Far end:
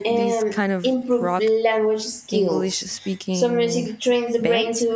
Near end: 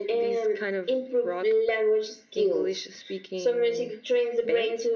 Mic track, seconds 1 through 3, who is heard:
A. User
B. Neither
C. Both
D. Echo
D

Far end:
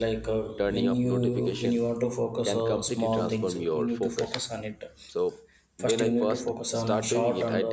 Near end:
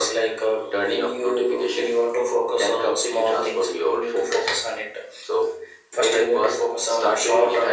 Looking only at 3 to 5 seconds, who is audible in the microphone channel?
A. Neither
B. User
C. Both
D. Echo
D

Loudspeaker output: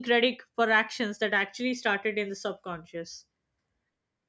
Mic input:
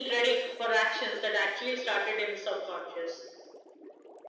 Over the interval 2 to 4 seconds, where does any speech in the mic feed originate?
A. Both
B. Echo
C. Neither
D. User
B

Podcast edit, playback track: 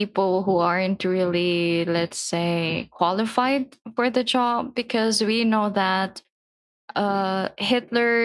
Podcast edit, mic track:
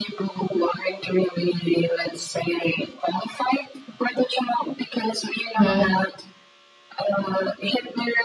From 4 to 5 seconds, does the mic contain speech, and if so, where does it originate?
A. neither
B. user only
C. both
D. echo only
D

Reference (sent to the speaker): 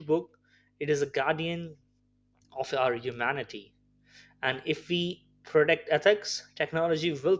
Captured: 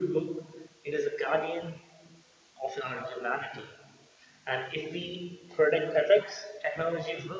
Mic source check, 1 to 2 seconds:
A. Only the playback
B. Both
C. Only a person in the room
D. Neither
A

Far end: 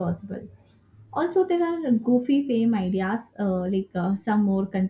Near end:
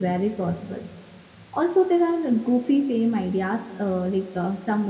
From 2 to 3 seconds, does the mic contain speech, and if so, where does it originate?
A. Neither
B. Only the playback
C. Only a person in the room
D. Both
B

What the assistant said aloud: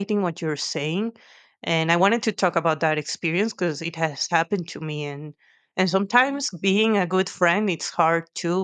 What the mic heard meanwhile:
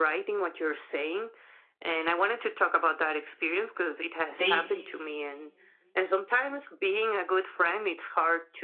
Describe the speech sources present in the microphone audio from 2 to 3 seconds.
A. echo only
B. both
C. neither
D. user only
A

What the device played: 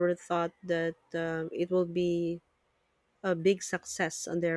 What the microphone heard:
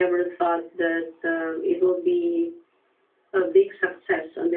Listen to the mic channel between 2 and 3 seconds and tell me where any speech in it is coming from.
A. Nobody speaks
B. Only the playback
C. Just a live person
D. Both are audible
B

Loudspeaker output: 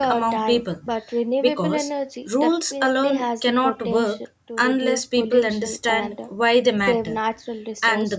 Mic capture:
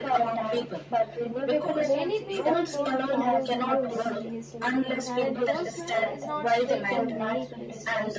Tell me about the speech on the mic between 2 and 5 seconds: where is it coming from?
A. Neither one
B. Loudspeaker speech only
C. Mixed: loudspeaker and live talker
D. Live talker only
C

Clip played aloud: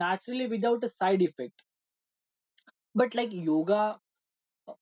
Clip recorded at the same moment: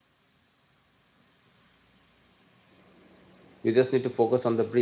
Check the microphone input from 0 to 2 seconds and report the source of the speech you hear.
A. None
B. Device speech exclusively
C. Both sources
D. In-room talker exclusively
A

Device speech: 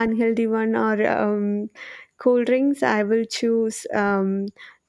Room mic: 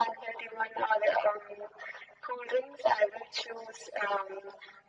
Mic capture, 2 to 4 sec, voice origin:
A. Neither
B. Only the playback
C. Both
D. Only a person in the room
B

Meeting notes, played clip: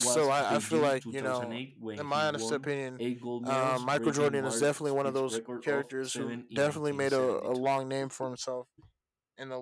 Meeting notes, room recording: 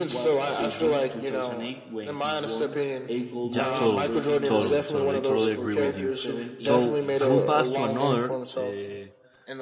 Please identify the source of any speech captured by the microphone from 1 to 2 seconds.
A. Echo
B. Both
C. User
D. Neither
A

